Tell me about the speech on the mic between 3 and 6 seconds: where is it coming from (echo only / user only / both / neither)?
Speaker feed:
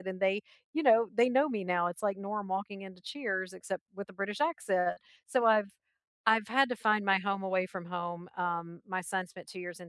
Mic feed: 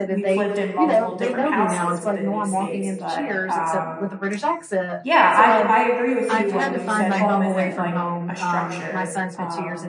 both